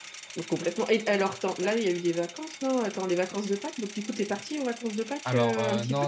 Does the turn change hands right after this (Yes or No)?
Yes